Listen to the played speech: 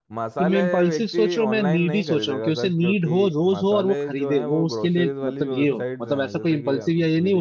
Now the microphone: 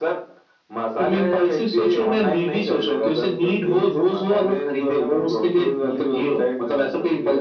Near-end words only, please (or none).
none